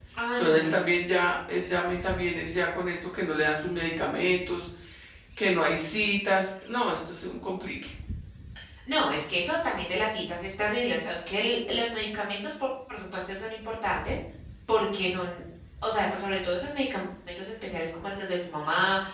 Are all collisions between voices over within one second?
Yes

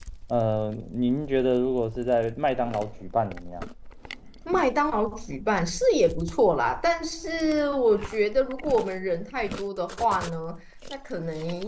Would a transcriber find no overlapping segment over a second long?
Yes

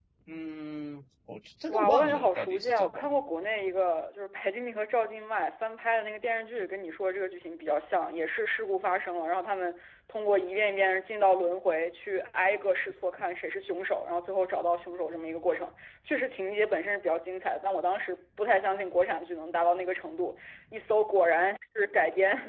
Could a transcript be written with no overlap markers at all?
No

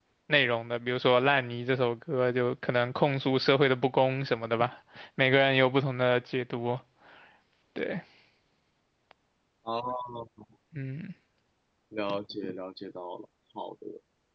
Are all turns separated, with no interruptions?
Yes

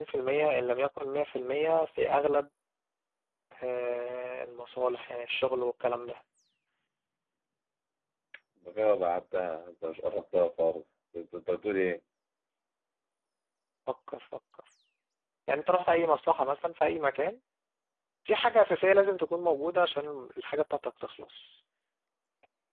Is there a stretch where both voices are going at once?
No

